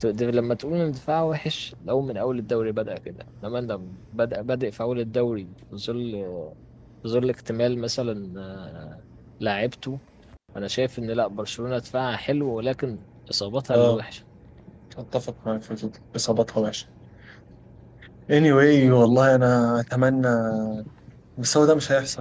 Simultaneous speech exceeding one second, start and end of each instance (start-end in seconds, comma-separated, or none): none